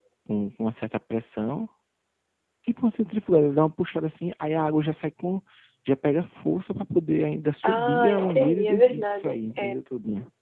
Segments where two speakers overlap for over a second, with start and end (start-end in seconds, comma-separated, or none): 7.6-9.8